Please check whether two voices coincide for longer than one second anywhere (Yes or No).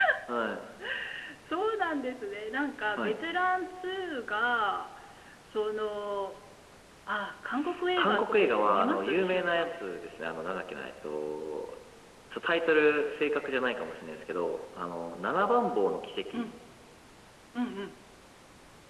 Yes